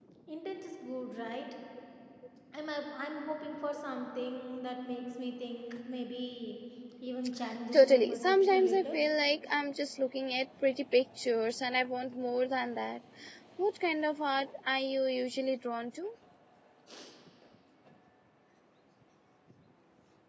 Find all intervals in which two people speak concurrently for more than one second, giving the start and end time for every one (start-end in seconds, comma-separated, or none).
7.7-9.0